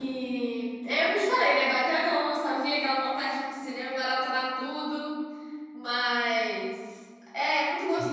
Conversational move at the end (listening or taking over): taking over